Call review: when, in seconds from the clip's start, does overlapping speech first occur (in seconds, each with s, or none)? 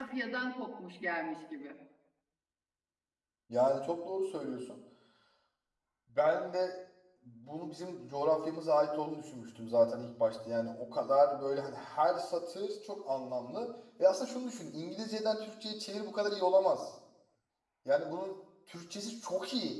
none